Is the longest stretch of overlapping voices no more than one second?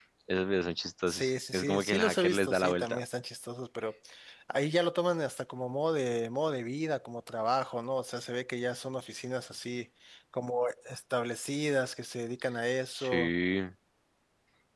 No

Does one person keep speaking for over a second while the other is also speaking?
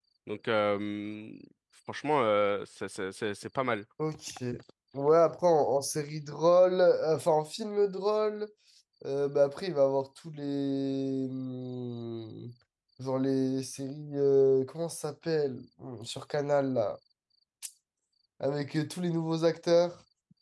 No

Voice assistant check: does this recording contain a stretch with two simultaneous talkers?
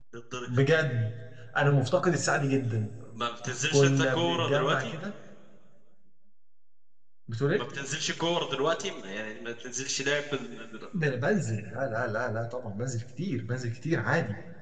Yes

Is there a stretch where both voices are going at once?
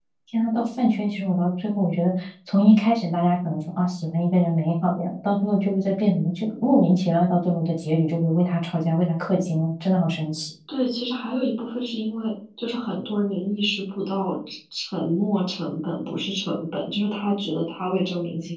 No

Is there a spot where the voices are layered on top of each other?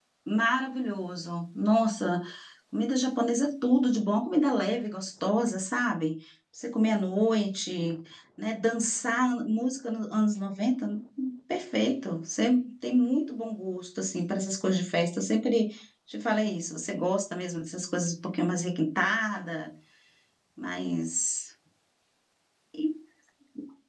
No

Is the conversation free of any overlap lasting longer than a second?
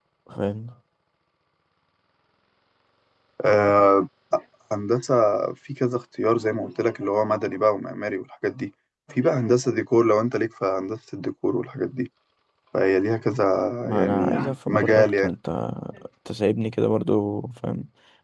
No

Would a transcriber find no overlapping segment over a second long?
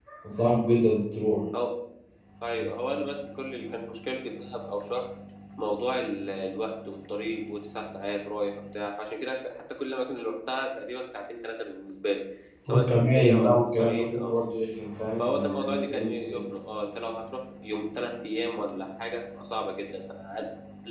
No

